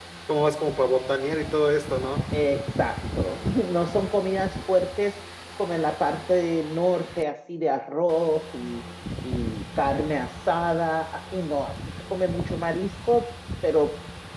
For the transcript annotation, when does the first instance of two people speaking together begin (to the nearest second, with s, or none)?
none